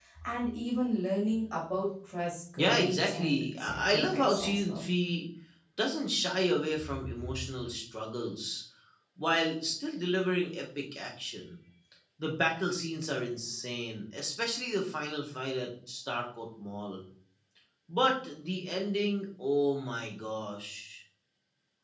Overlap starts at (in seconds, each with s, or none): 2.6 s